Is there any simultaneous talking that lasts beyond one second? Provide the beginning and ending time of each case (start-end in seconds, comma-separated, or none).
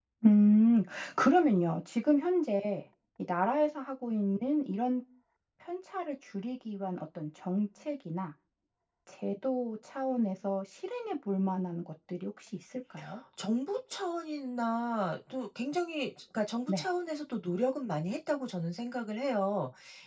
none